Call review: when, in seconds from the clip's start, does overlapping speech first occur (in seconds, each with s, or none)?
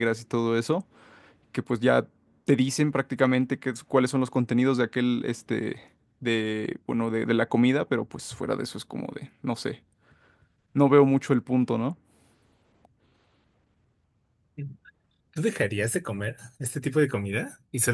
none